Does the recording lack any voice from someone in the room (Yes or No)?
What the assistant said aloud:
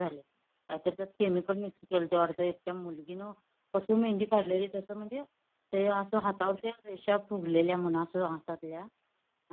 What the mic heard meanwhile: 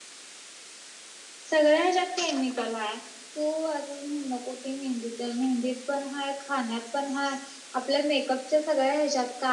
No